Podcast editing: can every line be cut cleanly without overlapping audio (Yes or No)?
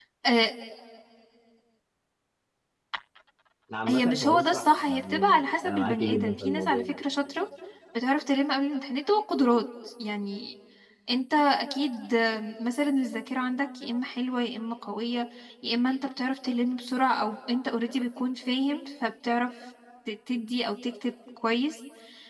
No